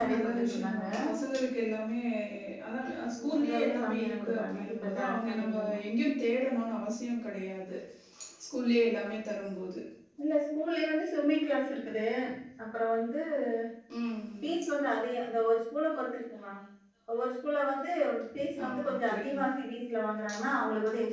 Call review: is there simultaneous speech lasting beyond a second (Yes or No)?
Yes